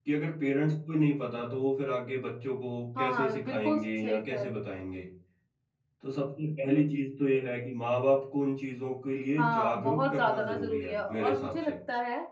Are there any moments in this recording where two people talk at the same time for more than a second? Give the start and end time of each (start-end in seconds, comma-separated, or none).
3.0-4.7, 9.4-11.8